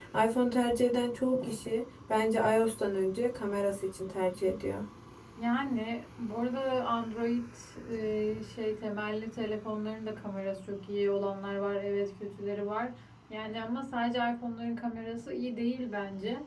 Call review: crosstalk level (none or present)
none